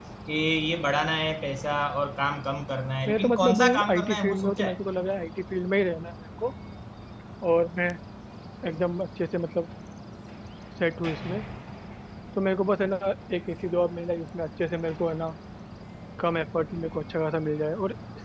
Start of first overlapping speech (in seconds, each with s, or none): 3.0 s